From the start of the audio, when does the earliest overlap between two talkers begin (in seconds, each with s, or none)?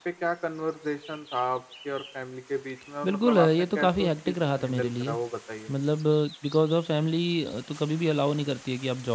3.0 s